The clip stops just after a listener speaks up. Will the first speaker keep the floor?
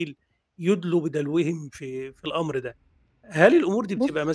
Yes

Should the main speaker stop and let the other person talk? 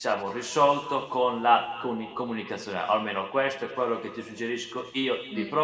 No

